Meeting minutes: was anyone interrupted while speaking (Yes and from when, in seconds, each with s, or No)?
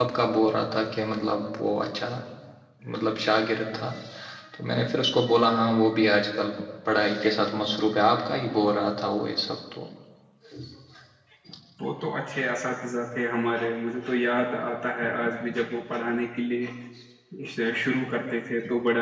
No